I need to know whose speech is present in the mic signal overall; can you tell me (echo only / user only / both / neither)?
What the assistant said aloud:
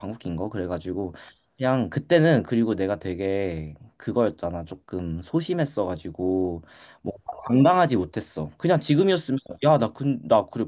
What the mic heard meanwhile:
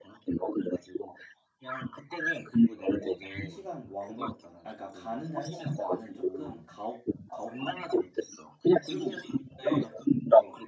both